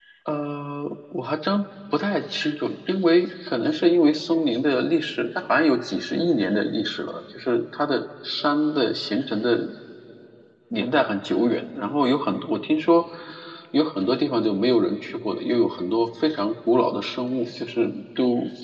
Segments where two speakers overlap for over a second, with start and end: none

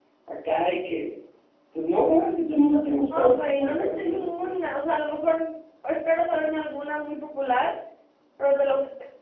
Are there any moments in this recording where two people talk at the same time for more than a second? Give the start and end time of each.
3.1-4.5

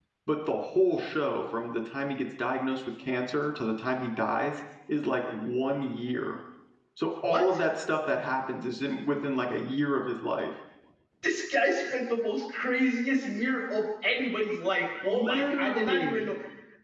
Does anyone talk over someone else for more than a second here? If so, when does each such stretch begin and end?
15.0-16.3

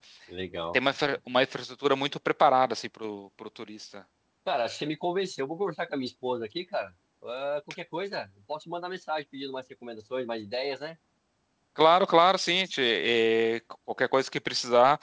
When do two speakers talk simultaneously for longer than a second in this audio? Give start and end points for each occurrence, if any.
none

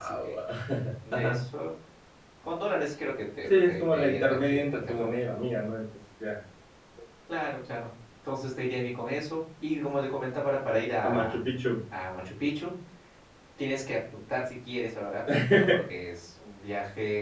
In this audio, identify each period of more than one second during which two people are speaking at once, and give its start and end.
3.4-5.2

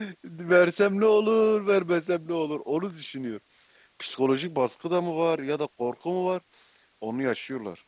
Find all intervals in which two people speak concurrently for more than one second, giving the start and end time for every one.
none

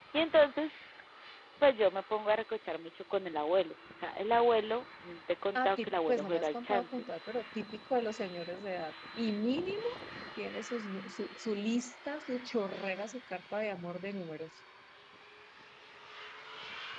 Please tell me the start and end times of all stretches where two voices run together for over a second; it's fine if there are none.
5.5-7.0

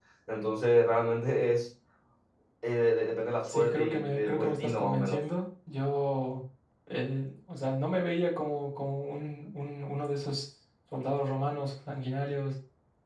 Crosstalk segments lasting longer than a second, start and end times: 3.5-5.2

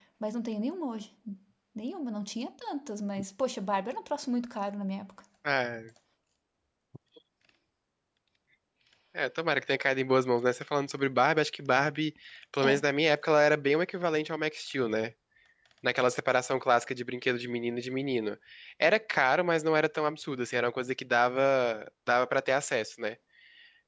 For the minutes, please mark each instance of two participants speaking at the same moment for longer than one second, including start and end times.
none

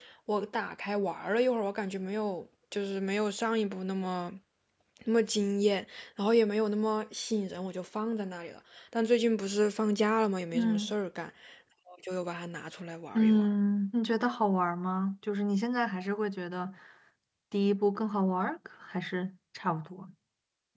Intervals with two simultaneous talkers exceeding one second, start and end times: none

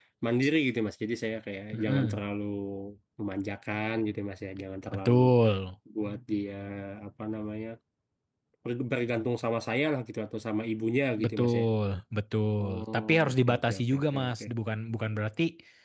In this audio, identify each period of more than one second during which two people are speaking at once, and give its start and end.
12.6-14.4

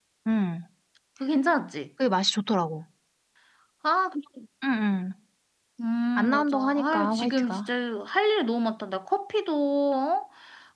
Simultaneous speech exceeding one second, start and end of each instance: 6.2-7.7

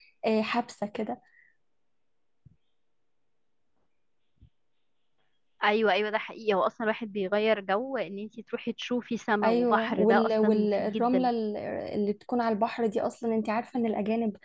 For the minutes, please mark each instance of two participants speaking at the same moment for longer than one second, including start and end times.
9.4-11.3

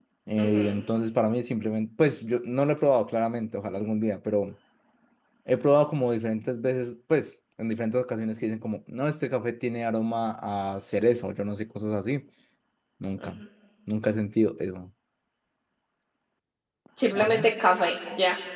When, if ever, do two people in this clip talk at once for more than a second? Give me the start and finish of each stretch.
none

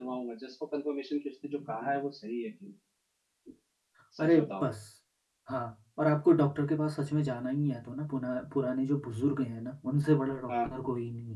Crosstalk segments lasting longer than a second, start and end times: none

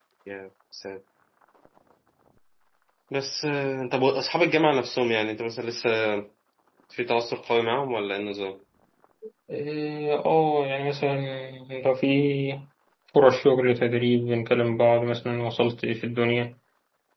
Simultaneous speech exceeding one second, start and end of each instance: none

